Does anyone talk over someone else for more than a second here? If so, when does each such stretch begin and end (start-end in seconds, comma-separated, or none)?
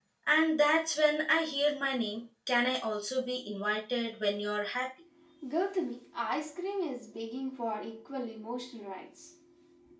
none